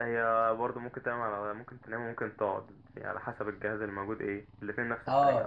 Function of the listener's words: taking over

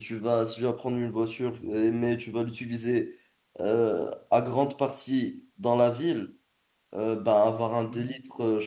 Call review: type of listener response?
listening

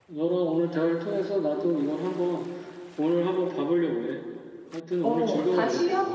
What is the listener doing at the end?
taking over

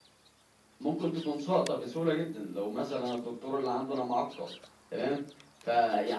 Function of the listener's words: listening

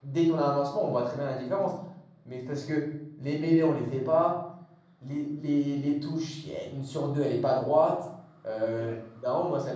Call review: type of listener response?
listening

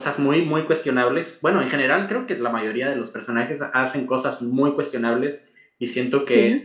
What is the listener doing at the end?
listening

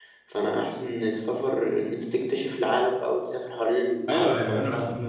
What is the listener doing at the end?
taking over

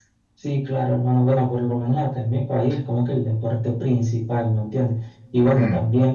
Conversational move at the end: listening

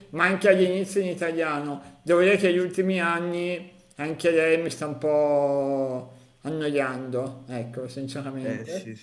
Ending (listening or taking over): taking over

